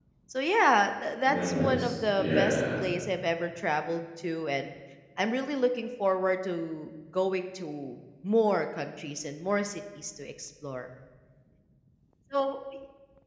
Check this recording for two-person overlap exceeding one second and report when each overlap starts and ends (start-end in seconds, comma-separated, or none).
1.2-2.6